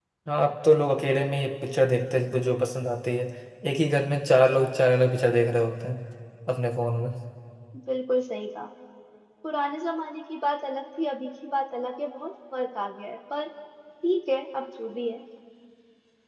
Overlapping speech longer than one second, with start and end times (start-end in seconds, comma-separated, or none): none